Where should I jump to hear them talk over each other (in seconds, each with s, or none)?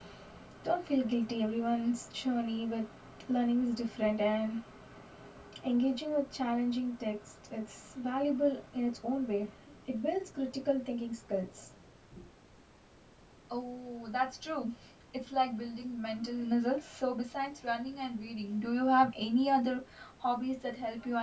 none